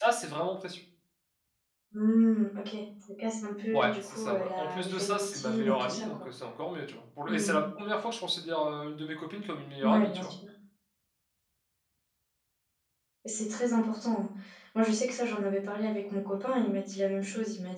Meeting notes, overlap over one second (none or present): present